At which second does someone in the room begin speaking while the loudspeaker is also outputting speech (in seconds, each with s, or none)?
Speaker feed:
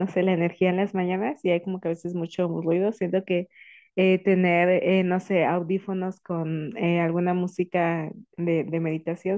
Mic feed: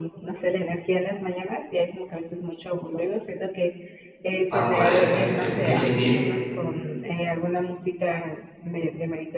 4.5 s